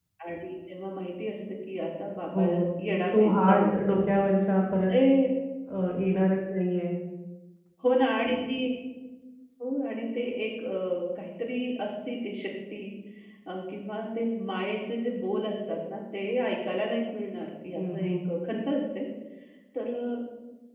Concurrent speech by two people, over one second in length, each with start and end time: 2.4-4.3

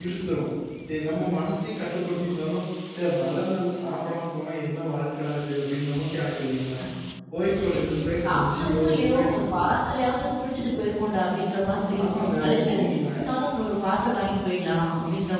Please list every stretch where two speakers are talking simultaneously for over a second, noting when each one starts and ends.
8.2-9.7, 11.7-13.0

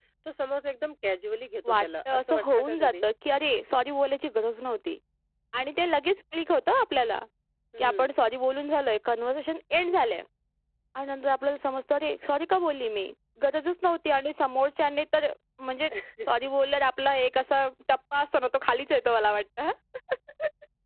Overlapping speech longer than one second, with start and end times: 1.6-2.9

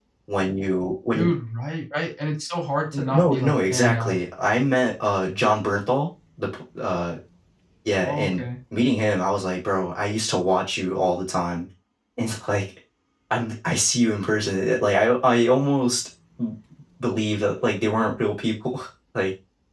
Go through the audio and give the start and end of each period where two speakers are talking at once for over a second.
2.9-4.2

